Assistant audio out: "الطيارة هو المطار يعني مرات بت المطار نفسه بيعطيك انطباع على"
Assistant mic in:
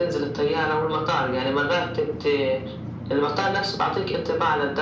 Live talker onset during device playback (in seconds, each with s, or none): none